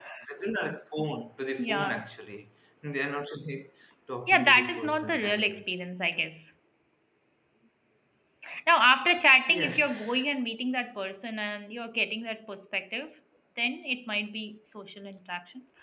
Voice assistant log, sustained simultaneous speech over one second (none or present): present